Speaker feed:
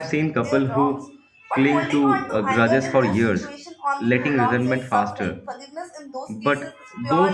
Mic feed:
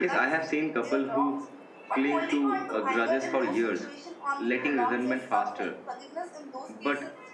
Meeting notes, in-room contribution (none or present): none